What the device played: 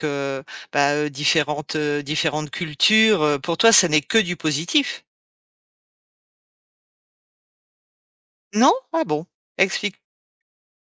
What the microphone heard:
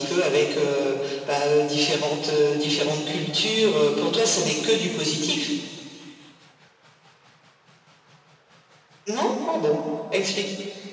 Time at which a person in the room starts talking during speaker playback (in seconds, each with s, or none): none